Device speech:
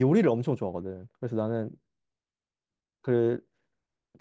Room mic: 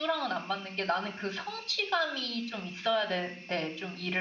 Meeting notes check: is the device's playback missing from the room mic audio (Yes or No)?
Yes